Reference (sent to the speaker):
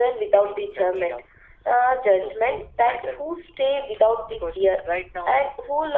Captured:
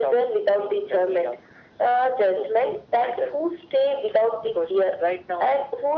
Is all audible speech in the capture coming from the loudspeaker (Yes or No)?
Yes